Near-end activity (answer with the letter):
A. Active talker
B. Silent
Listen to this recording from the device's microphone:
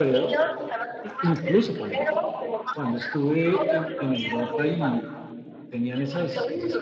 A